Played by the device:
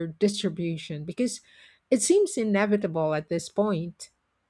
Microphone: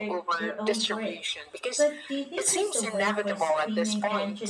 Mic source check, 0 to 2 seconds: both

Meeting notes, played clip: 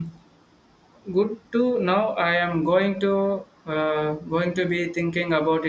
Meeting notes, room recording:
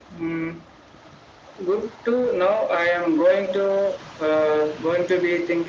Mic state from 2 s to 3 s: echo only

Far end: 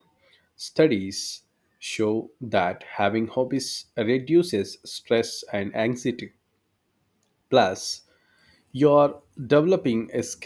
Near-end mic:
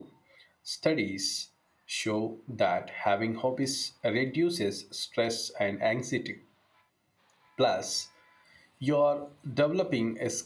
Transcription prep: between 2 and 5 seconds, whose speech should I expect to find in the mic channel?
echo only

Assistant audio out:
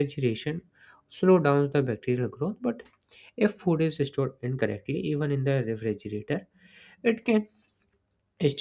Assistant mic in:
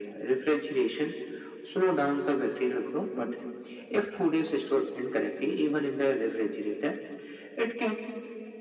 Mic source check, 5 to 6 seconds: echo only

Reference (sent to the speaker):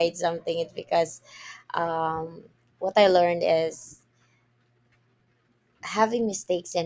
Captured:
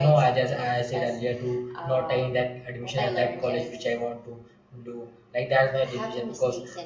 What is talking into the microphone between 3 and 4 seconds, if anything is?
both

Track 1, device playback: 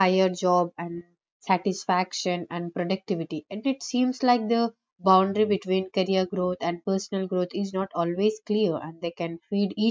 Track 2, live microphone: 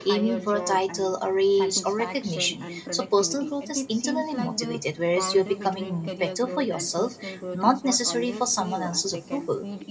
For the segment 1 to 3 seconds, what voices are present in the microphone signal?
both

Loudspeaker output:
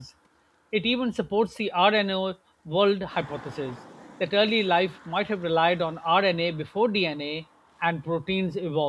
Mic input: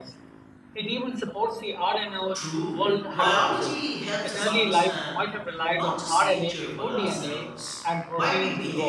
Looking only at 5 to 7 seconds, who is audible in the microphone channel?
both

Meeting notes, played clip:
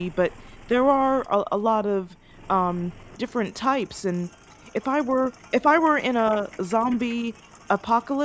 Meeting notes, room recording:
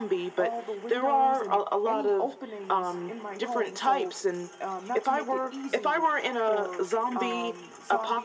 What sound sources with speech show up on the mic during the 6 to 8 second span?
both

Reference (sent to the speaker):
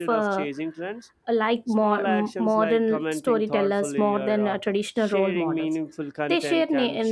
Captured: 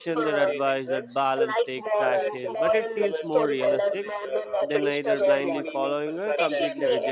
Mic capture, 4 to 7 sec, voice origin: both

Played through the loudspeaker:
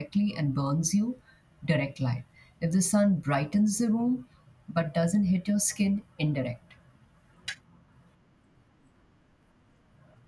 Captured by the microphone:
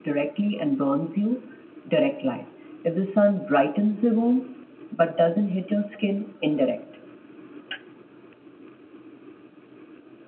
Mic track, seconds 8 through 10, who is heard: neither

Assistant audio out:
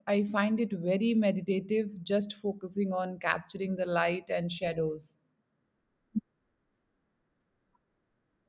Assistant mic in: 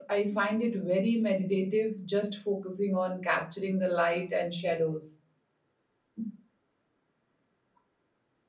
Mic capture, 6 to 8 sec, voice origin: neither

